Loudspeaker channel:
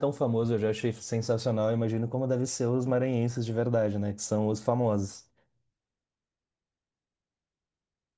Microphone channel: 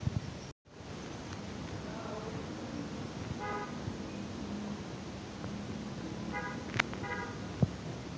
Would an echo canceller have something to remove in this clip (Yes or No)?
No